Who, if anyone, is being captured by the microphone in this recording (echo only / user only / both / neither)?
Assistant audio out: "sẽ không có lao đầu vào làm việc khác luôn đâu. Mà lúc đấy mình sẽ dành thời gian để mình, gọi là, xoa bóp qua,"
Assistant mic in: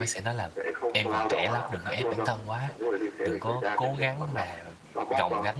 both